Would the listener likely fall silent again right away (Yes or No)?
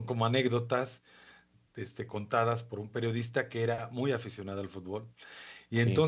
Yes